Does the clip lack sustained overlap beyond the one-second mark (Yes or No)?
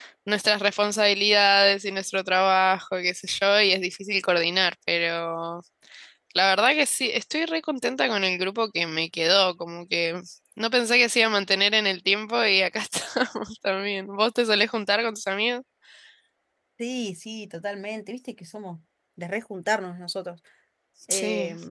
Yes